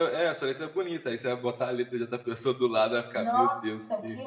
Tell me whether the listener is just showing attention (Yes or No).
No